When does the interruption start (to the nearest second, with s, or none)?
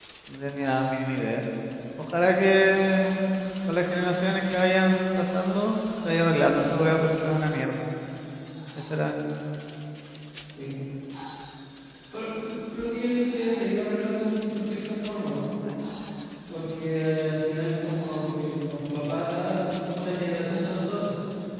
none